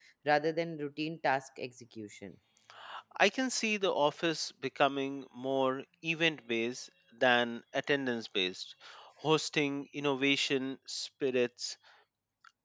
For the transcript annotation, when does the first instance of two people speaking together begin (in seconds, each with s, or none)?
none